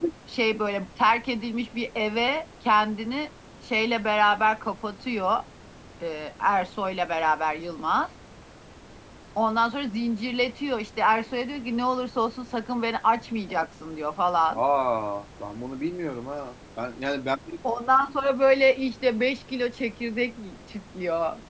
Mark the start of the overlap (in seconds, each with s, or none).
none